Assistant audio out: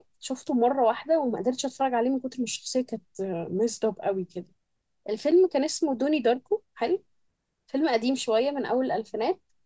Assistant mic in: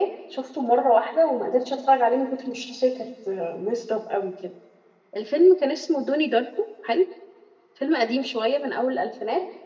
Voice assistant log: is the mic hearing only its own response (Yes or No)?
Yes